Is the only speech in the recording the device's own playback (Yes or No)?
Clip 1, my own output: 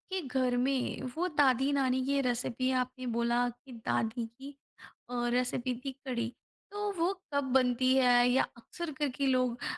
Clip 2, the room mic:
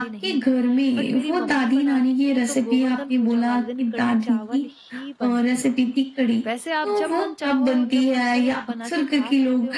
No